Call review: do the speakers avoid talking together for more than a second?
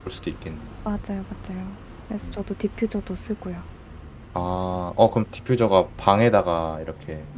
Yes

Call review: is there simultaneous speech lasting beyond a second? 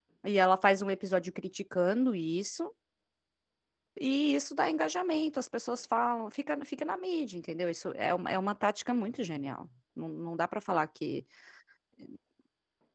No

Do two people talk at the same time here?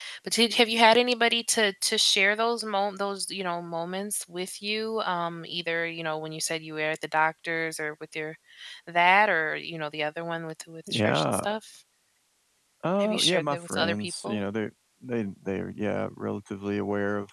Yes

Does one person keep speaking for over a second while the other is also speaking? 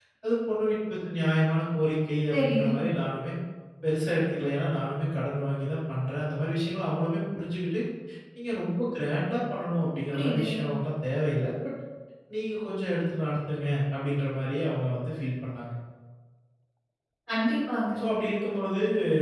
No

